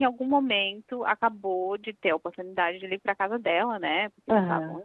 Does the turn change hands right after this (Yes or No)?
No